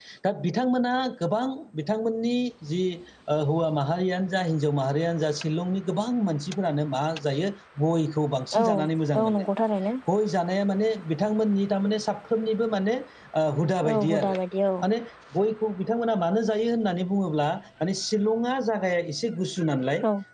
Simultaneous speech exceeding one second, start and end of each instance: none

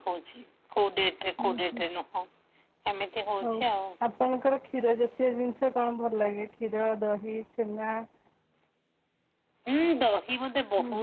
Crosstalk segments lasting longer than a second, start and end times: none

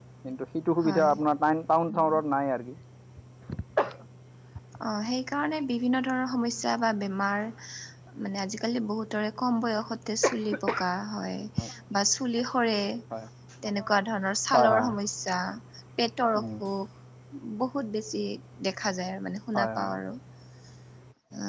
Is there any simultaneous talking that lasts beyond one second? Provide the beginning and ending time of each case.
none

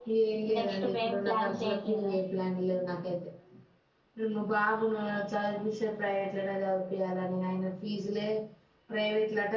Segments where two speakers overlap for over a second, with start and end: 0.6-2.1

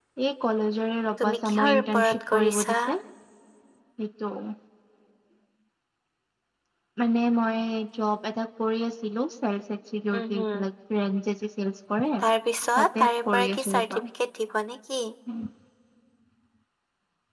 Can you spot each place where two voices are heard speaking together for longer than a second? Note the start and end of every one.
1.2-2.7, 12.8-14.0

